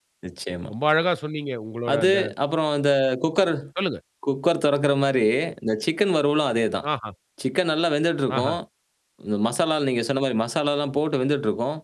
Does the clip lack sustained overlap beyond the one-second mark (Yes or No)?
Yes